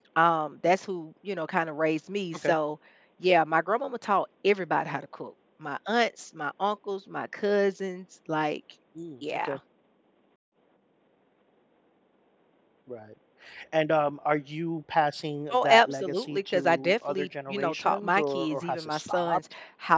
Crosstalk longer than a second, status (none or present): present